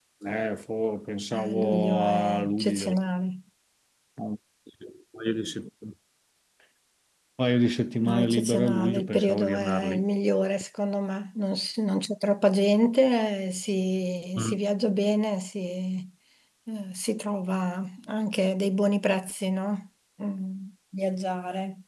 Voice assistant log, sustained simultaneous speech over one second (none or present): present